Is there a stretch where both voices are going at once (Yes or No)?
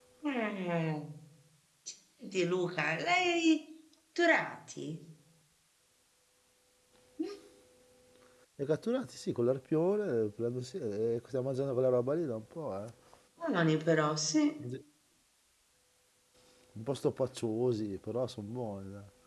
No